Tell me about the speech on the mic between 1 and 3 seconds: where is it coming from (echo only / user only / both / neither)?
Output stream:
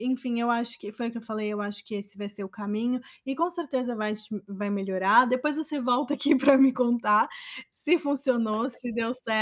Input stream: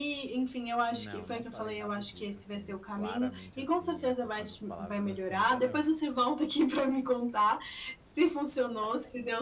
both